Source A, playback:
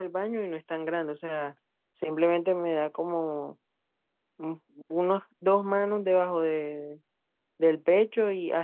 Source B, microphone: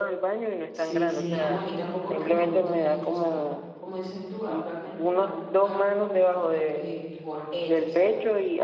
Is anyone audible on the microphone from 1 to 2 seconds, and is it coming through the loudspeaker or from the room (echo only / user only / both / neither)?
both